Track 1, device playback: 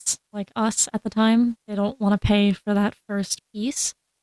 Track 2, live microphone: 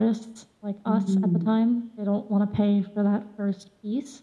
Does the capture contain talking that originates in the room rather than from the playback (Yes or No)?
Yes